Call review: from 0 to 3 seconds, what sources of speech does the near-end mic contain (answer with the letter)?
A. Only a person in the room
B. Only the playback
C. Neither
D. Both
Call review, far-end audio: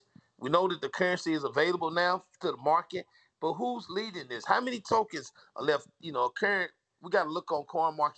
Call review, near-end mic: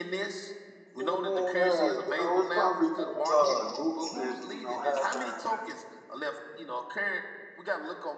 D